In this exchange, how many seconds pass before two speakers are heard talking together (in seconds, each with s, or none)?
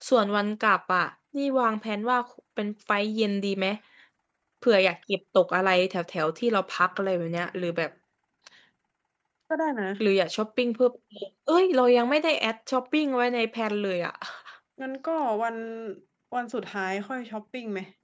none